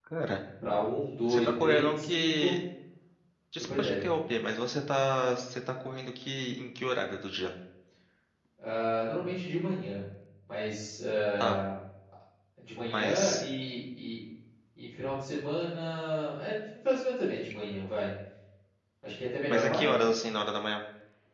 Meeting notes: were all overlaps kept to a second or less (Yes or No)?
No